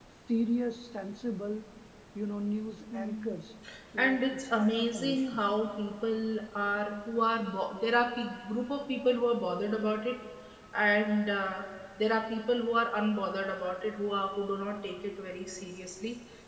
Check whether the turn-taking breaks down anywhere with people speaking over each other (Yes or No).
Yes